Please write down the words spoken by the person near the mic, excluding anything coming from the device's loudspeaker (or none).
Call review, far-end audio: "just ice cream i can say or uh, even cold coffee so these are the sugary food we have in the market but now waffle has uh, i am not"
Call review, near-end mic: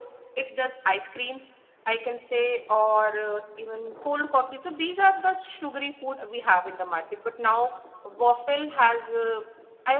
none